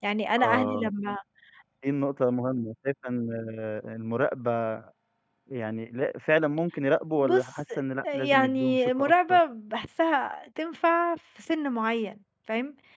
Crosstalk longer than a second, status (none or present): present